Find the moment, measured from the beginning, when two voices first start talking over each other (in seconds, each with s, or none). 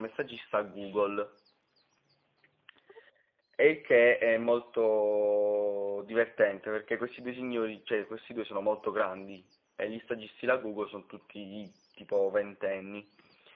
none